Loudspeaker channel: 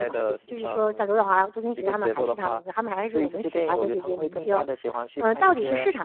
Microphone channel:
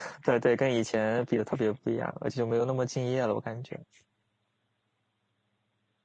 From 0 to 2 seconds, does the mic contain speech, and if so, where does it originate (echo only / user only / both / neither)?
user only